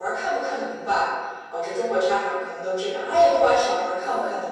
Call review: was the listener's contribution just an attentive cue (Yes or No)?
Yes